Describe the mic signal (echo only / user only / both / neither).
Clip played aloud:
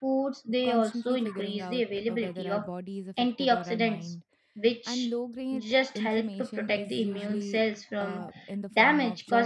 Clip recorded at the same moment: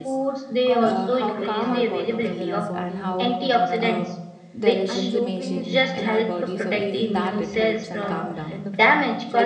both